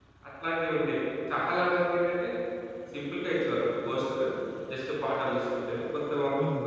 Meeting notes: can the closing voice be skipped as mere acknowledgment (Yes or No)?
Yes